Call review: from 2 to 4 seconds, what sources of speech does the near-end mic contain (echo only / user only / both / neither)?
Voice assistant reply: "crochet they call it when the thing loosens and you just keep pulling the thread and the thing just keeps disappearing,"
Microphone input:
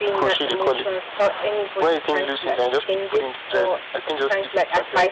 both